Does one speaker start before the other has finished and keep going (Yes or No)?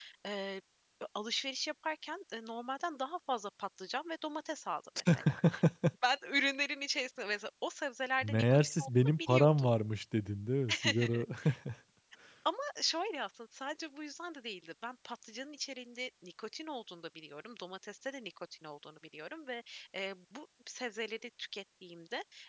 Yes